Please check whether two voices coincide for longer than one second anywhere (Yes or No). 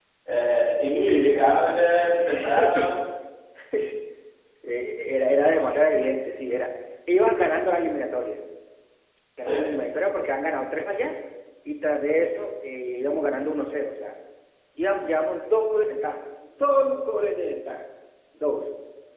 Yes